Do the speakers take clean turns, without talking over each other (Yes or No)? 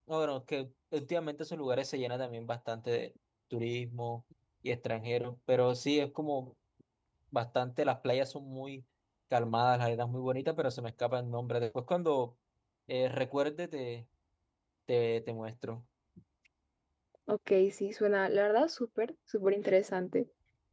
Yes